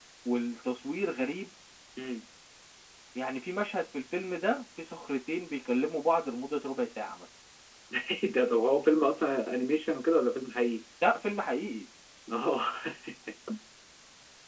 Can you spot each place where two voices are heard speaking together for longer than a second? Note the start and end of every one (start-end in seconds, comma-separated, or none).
none